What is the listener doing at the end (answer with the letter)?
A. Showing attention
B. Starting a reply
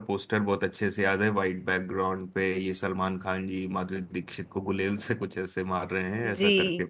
B